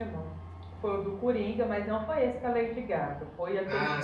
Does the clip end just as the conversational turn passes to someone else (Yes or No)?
Yes